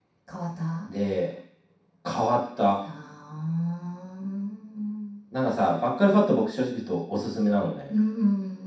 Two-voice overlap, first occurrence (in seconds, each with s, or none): none